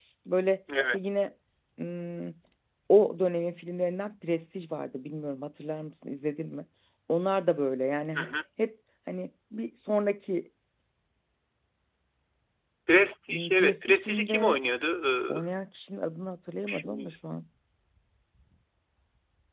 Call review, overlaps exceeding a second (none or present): present